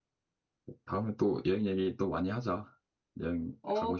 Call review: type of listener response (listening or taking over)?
taking over